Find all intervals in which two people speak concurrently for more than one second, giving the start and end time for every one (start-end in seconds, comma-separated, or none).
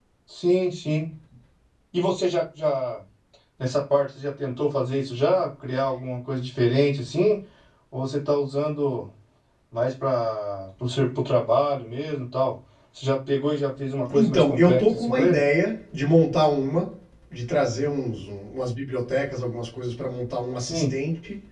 14.1-15.4